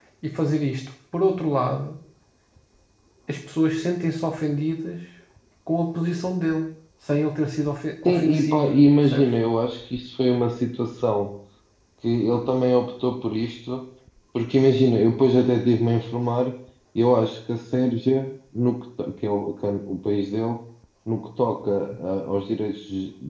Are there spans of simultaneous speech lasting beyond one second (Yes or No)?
Yes